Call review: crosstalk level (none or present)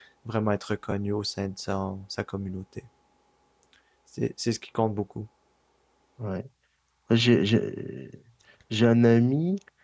none